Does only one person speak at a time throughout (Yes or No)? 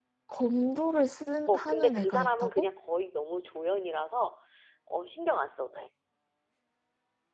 No